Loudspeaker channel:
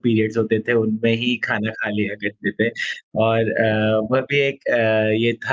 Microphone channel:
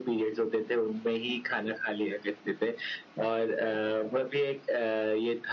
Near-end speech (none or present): none